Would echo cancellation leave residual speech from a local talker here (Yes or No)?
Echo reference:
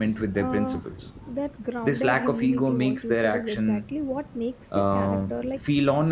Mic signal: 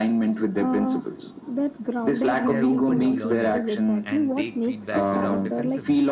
Yes